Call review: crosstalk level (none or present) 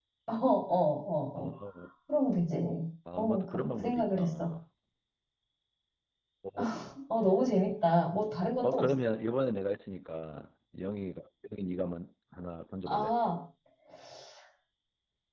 present